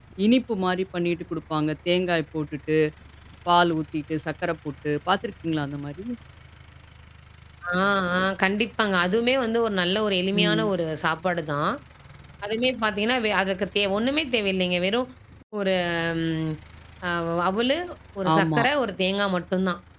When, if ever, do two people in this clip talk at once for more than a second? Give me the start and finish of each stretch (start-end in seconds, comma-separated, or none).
none